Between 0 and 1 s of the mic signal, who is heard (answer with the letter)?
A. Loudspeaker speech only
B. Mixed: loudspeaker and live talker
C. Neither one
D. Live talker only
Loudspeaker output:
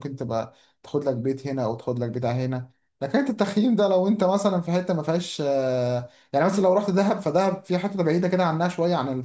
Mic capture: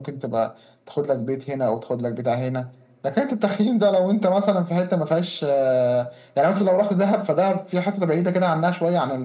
A